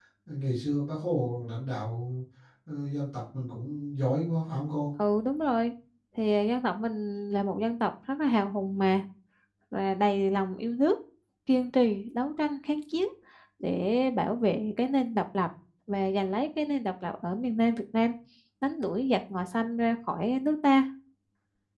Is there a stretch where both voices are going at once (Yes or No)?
No